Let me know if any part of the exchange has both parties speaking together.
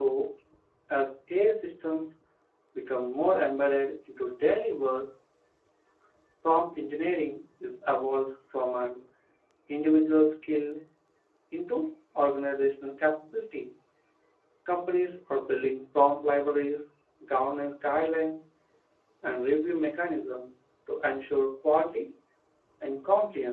No

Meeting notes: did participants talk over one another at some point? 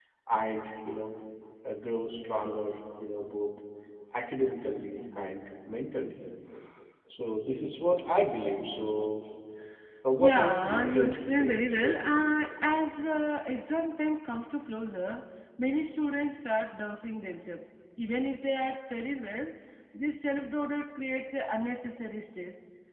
Yes, from 10.2 s

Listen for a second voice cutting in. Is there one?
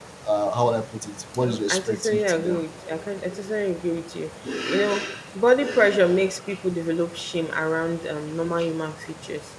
Yes, from 1.4 s

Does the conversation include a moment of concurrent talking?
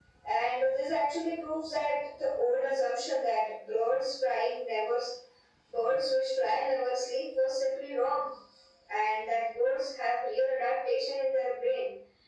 No

